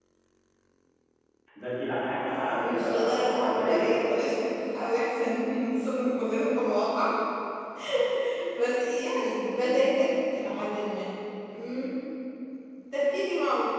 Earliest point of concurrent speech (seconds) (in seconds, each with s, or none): 2.3 s